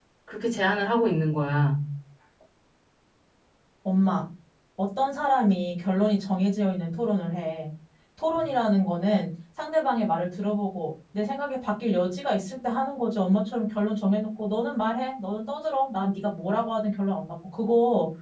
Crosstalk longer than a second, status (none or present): none